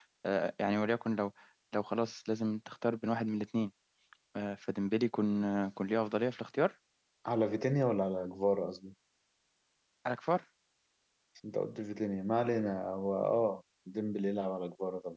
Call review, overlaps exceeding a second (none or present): none